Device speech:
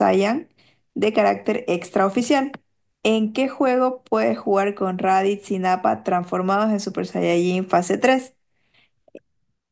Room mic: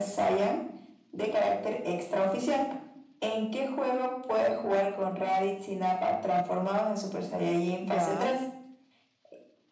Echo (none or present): present